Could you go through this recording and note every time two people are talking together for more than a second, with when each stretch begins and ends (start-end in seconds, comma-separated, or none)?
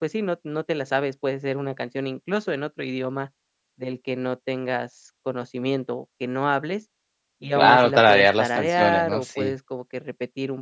7.6-9.5